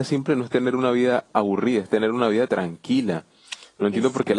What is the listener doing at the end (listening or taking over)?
listening